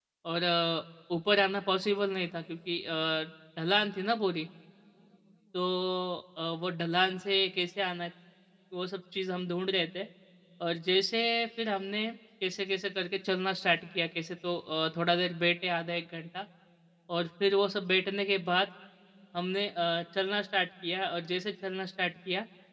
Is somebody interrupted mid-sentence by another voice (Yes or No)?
No